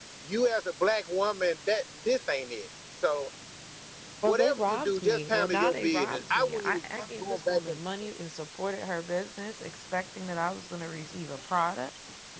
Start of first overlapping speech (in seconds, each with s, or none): 4.2 s